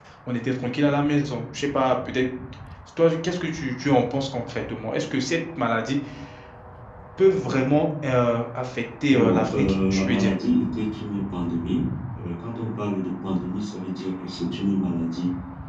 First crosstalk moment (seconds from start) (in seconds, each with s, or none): 9.1 s